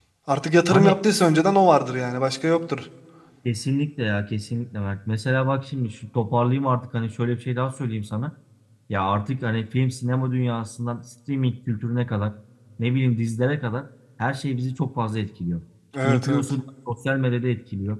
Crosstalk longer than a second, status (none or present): none